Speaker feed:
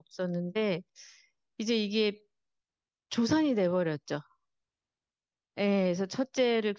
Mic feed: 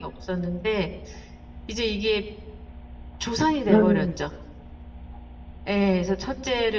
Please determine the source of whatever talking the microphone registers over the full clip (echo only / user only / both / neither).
both